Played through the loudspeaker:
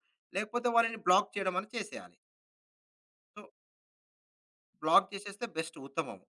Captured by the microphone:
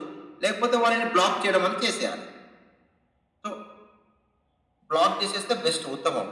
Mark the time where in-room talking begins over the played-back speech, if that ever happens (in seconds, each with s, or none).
none